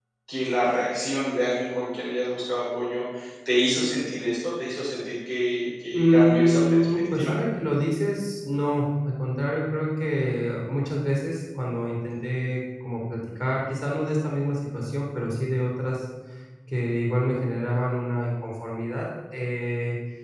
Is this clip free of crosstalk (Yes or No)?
No